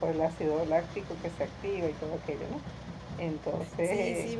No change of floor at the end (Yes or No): No